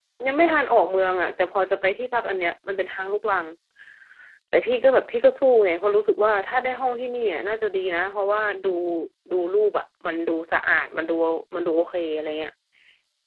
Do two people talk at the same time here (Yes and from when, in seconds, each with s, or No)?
No